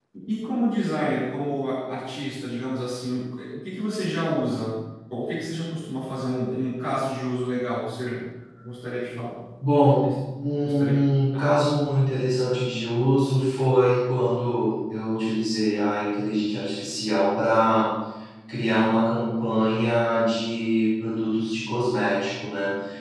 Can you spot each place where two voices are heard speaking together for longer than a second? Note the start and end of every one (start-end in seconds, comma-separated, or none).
none